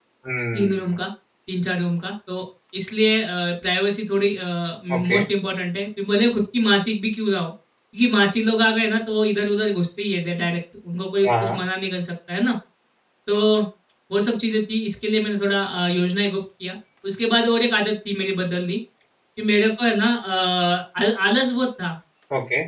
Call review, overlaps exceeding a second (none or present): none